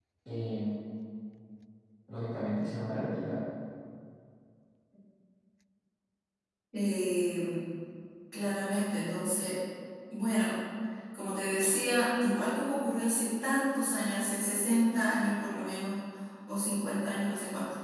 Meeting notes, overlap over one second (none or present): none